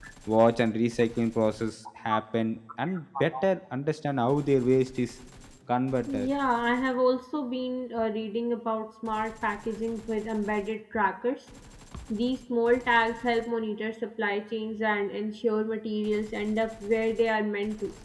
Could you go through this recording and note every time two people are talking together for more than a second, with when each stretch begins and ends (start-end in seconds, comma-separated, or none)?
none